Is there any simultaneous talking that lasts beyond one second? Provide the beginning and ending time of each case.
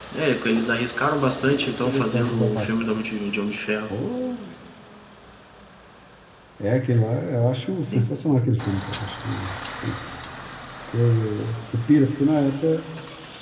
1.4-2.7

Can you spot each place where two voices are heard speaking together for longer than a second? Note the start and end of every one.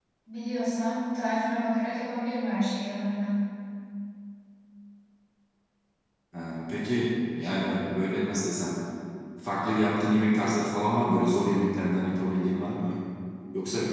none

